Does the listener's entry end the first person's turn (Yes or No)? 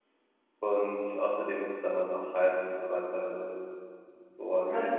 Yes